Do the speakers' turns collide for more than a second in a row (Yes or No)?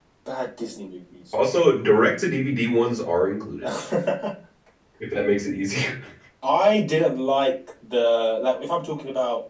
No